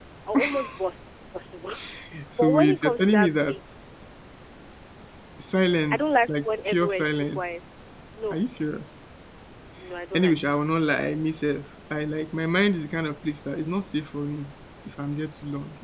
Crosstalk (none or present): present